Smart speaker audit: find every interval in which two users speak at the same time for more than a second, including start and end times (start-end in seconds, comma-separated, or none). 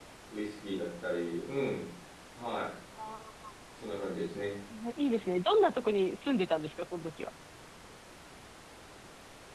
none